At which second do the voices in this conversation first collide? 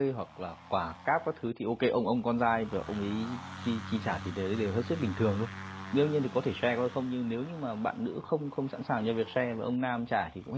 none

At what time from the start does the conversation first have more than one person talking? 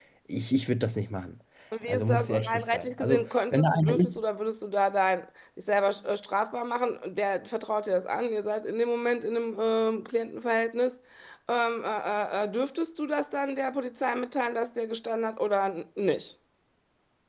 1.9 s

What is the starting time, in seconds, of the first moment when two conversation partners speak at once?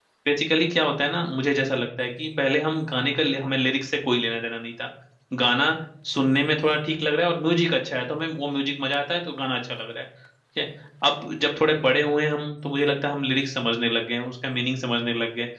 none

